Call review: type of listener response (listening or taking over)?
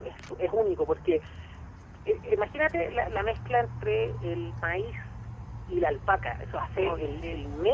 listening